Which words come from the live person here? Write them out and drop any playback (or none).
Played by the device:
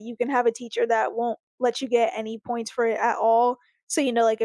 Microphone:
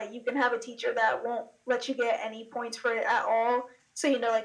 none